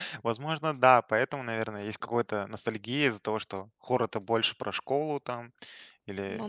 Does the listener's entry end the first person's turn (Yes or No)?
No